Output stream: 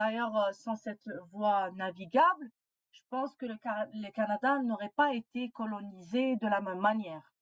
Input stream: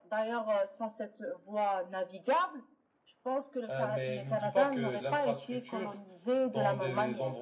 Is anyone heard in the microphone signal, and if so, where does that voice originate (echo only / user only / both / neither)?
both